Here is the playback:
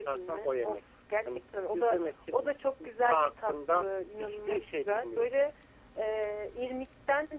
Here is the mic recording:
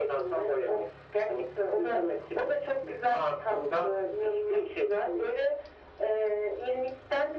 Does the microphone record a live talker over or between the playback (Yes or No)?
No